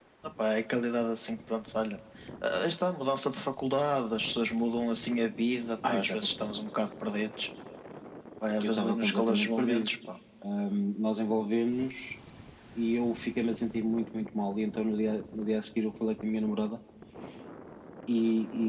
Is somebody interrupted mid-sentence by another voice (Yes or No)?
Yes